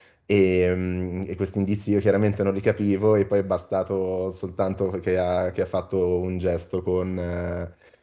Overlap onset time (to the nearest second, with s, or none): none